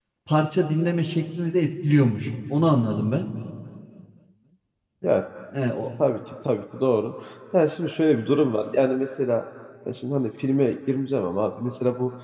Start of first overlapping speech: none

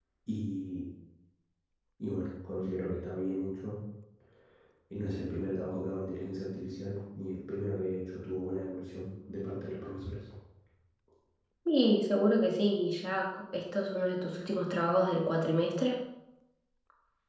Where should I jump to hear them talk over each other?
none

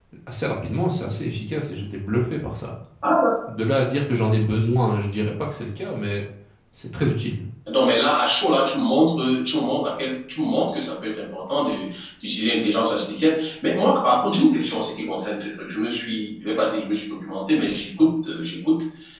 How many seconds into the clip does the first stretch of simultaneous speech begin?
none

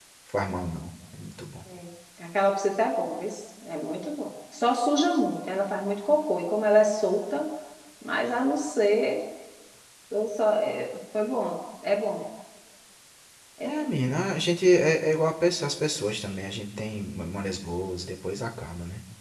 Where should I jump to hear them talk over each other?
none

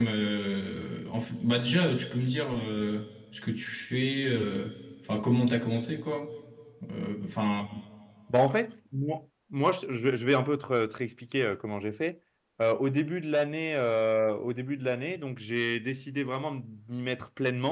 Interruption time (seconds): none

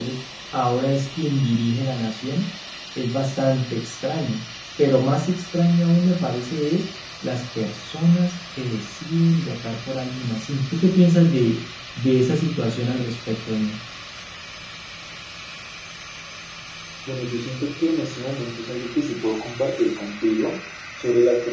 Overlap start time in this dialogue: none

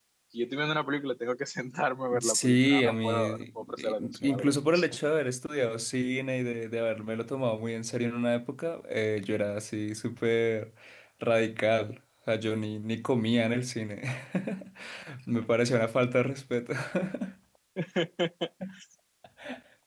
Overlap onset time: 2 s

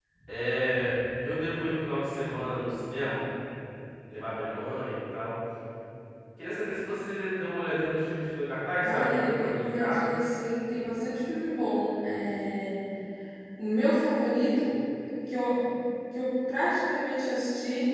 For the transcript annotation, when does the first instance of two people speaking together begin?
9 s

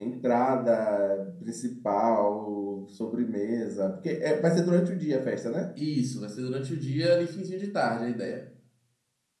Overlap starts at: none

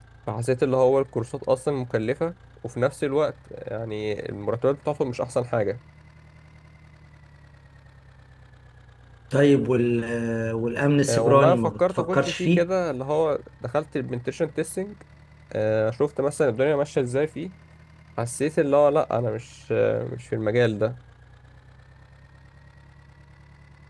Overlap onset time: 11 s

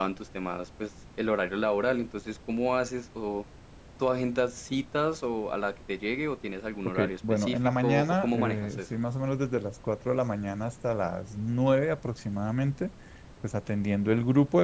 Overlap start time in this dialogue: 7 s

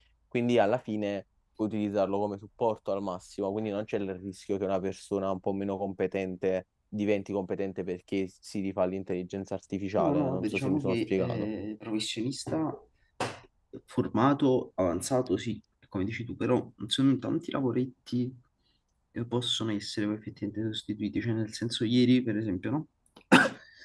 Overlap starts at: 10 s

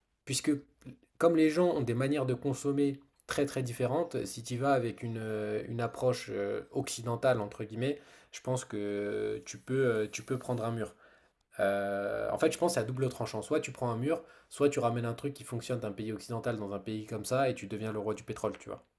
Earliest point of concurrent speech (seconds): none

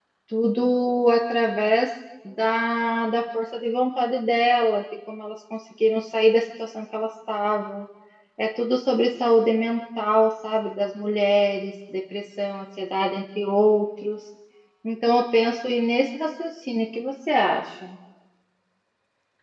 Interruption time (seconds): none

